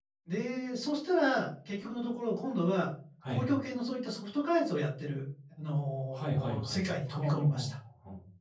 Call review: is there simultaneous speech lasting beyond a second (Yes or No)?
Yes